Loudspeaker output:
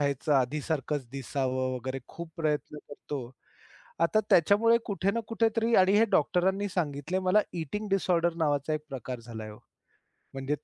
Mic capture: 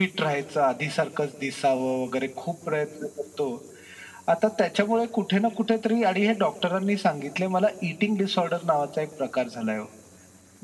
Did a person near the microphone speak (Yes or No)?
No